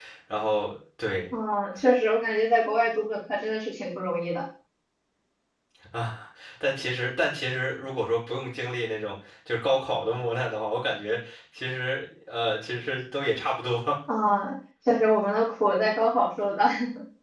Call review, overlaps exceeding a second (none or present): none